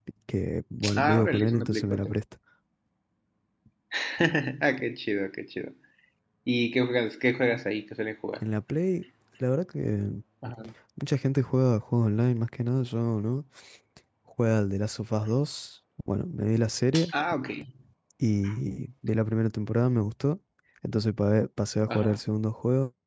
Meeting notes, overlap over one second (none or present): present